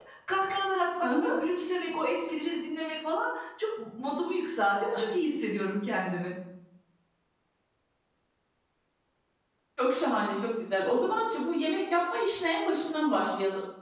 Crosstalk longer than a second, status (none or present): none